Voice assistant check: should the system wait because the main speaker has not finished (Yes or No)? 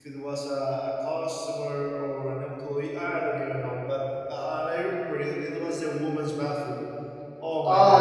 No